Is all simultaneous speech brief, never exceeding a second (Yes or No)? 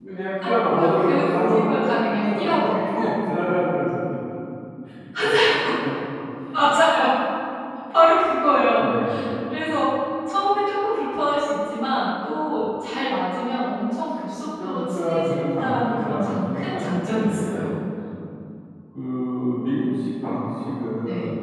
No